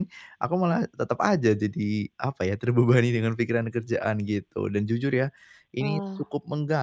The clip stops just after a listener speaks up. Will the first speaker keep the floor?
Yes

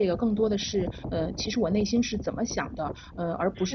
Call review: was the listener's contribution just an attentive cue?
Yes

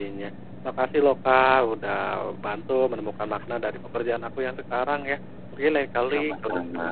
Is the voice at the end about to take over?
No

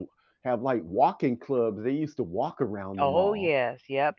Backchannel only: No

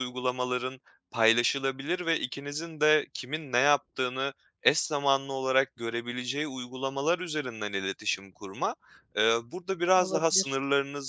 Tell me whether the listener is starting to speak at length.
No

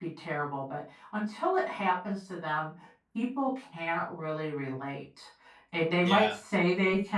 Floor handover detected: No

